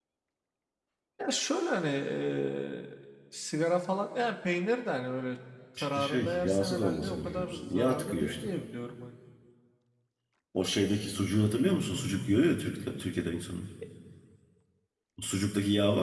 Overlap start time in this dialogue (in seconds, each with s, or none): 5.8 s